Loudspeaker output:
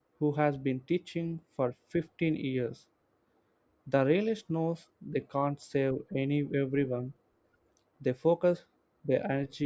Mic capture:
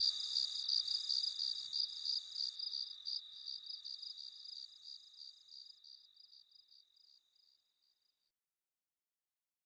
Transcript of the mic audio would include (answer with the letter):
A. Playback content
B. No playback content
B